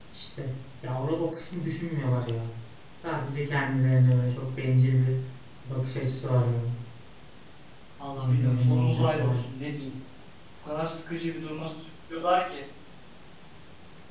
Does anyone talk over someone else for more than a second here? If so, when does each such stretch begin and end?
8.2-9.4

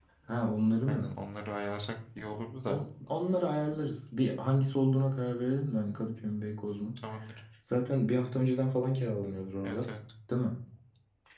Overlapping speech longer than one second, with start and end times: none

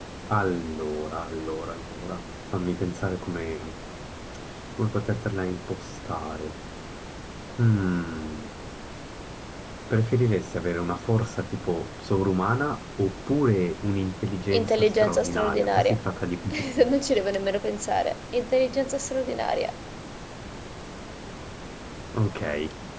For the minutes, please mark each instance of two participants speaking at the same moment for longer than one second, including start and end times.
14.5-16.0

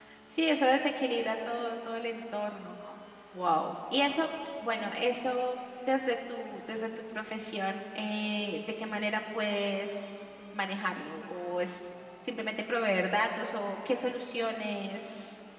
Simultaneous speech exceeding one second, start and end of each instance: none

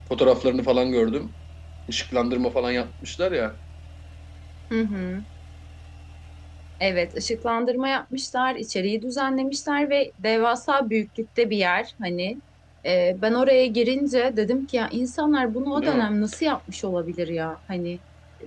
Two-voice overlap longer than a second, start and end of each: none

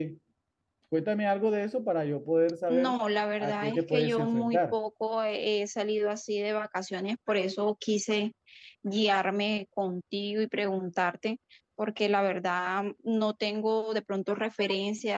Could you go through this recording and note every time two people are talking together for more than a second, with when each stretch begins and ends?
3.4-4.8

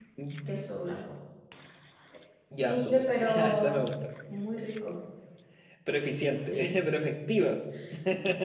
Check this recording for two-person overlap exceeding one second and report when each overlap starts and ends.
2.6-3.9

